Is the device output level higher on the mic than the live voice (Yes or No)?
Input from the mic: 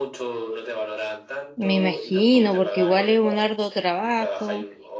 No